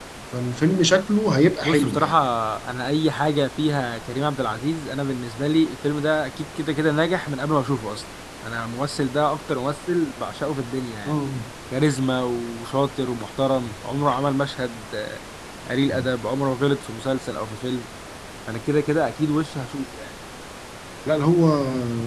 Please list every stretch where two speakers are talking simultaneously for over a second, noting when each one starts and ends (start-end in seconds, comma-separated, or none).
none